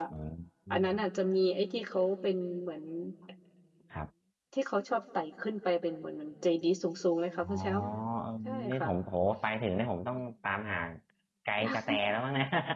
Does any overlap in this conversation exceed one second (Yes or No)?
No